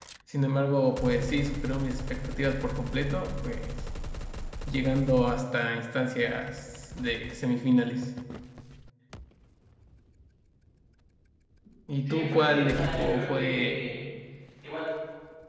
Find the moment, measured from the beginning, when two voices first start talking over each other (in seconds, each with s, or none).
12.0 s